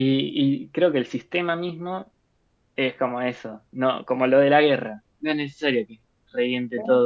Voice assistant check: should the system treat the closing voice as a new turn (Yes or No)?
No